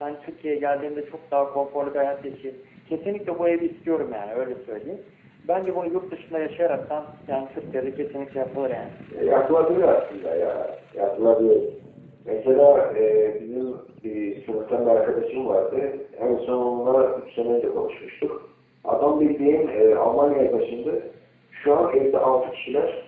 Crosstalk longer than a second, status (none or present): none